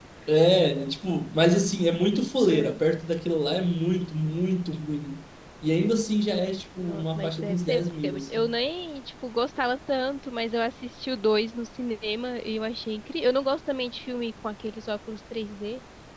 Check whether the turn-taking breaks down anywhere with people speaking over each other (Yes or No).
Yes